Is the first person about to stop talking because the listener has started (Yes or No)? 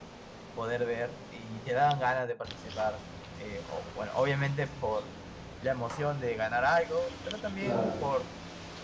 No